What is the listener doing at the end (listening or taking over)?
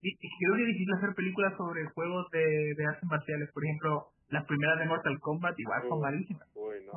taking over